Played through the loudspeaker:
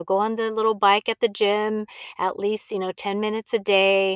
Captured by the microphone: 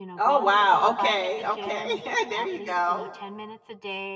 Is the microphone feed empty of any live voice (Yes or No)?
No